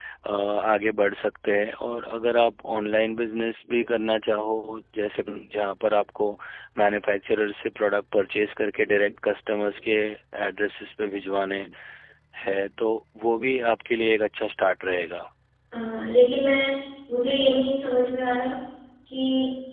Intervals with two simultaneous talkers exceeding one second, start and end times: none

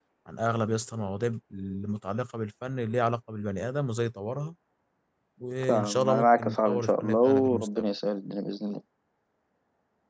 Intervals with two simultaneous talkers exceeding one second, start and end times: 5.7-7.9

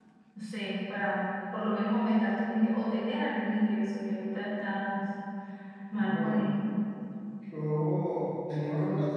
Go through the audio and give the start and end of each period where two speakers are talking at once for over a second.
none

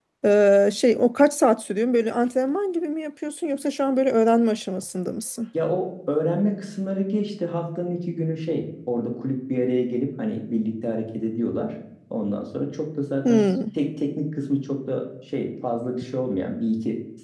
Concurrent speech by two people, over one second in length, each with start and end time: none

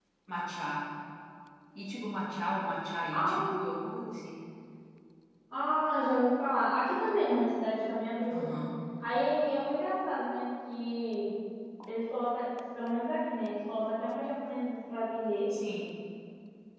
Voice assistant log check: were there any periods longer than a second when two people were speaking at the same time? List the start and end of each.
none

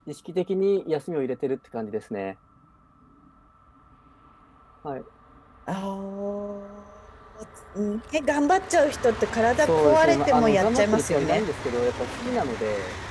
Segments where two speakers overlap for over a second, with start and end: 9.6-11.4

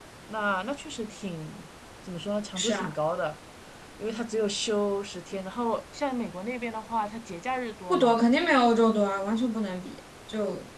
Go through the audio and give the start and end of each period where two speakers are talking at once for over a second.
none

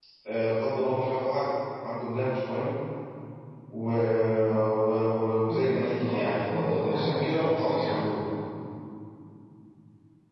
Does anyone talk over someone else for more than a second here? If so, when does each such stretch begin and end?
5.5-8.1

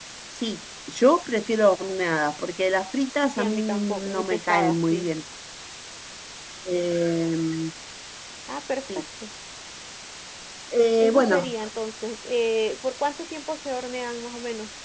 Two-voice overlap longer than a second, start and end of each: 3.4-5.1

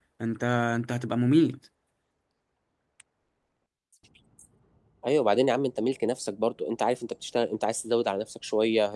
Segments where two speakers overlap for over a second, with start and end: none

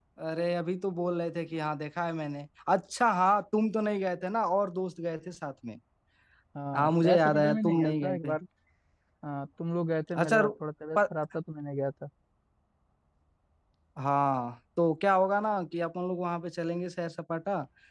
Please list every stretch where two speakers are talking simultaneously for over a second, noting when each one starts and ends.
6.7-8.3

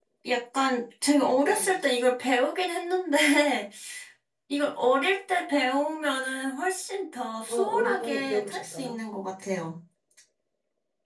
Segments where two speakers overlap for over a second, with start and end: 7.5-9.0

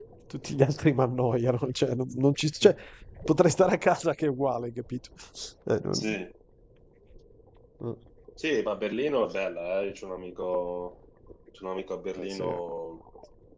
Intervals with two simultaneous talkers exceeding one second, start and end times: none

